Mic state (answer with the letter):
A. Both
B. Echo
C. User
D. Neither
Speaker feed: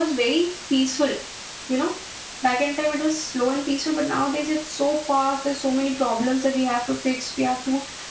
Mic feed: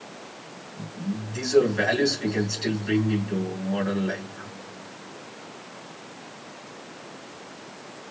C